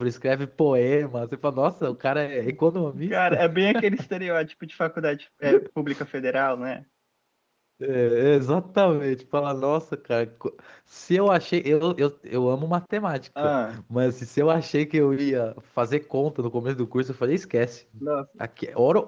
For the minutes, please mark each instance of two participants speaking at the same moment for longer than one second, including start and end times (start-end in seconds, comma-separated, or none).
none